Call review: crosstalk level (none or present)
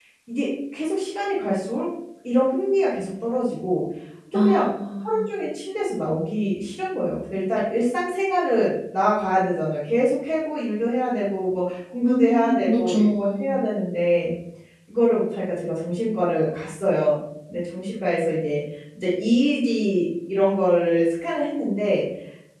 present